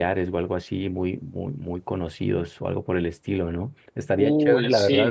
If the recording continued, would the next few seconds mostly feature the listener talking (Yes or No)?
No